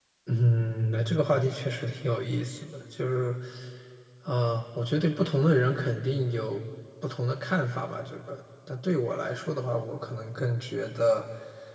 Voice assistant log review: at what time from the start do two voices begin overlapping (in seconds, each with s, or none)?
none